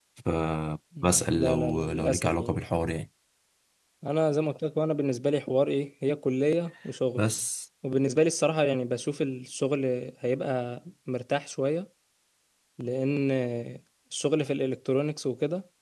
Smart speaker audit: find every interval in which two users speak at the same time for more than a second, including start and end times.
1.0-2.6

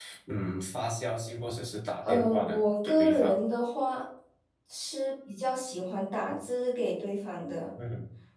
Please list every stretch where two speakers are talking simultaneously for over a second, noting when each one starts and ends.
2.0-3.4

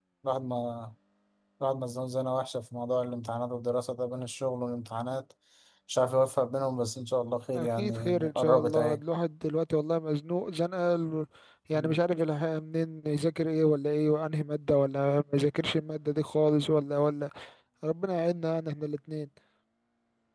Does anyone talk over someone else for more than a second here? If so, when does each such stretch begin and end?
7.5-9.0

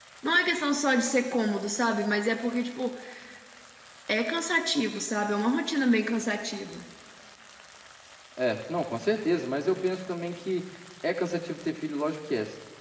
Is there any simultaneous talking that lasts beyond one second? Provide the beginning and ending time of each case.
none

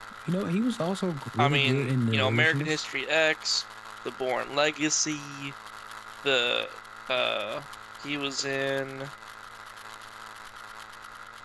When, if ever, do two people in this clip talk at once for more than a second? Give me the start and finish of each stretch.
1.4-2.8

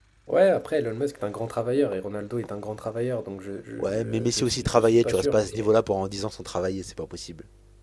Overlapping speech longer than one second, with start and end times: 3.8-5.8

